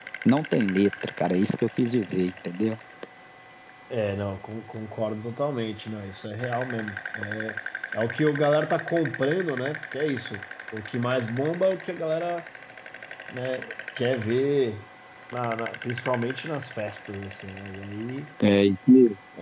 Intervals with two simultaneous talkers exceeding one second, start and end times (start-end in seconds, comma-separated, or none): none